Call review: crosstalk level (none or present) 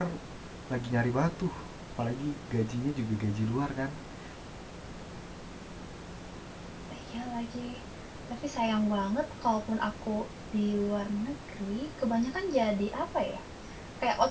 none